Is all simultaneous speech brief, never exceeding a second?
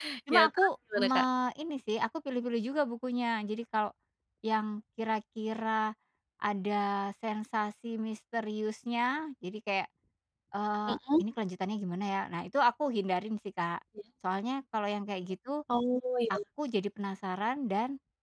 Yes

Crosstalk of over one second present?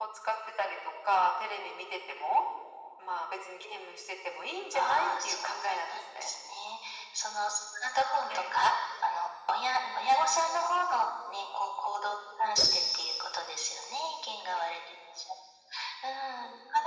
Yes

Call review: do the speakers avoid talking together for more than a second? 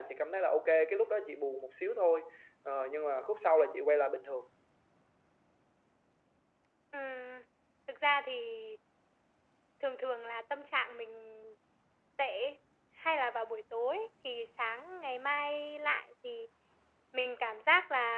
Yes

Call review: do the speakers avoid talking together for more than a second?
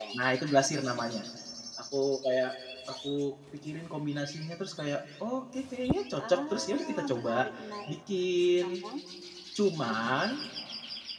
No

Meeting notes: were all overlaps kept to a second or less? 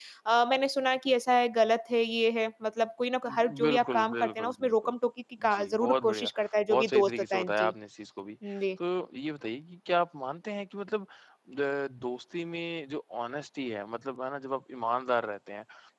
No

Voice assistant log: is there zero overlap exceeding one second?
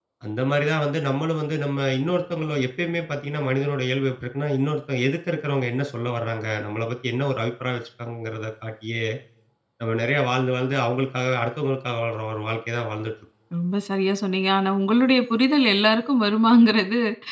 Yes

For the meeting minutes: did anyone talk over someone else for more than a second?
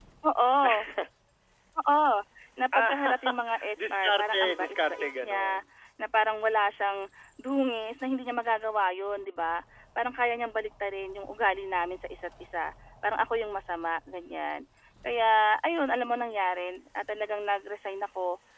Yes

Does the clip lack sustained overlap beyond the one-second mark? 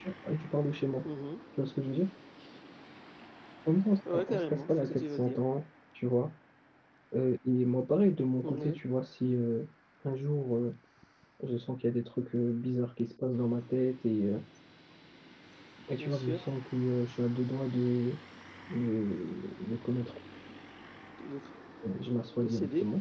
No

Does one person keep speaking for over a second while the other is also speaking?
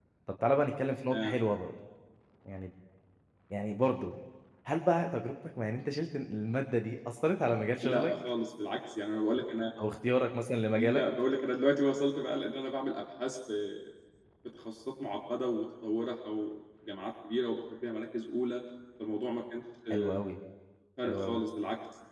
No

